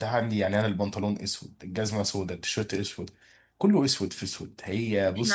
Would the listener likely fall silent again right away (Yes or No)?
No